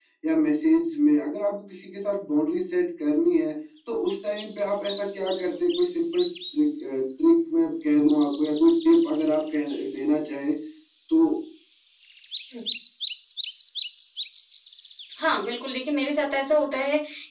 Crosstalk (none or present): none